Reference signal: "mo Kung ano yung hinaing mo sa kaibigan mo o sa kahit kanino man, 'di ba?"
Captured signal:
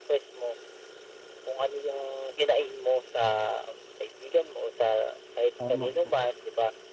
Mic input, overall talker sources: both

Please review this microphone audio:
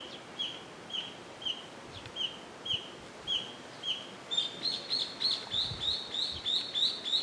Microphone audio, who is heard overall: neither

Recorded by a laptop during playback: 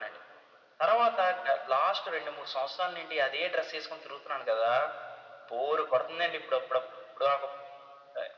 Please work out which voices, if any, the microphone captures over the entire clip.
echo only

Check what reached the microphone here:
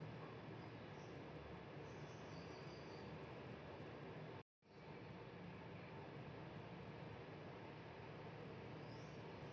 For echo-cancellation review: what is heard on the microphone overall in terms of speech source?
neither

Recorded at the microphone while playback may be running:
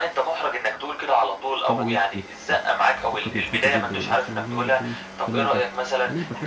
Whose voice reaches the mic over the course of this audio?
both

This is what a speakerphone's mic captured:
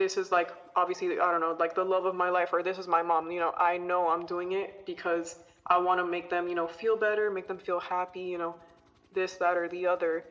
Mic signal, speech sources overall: echo only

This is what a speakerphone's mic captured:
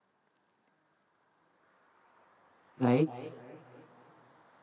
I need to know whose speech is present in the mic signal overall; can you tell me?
user only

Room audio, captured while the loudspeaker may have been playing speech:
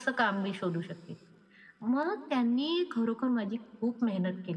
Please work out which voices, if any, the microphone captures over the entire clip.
echo only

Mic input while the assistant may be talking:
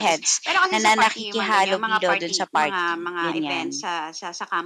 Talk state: both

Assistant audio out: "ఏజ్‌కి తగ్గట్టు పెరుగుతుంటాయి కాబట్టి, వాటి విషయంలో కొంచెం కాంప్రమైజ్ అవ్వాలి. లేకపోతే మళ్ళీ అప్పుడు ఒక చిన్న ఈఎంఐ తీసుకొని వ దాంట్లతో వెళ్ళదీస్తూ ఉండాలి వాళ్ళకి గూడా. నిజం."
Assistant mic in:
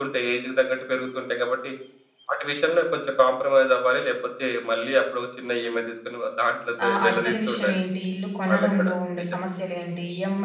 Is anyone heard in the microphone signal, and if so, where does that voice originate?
both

